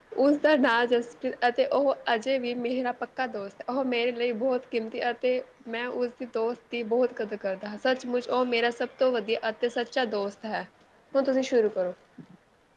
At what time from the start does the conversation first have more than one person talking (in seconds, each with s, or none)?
none